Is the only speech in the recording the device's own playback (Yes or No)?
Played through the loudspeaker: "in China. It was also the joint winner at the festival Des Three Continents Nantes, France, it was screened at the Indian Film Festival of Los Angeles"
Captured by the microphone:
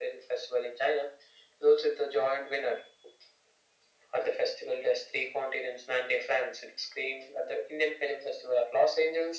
Yes